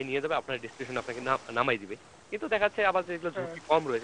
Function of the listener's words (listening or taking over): listening